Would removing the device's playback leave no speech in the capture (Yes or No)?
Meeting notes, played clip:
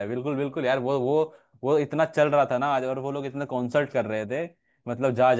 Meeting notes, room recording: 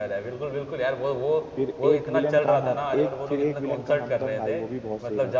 No